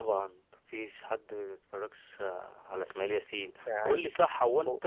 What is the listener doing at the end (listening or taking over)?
listening